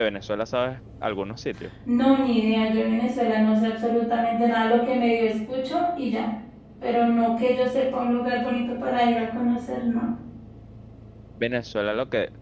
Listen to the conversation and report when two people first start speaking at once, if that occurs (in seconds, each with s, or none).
none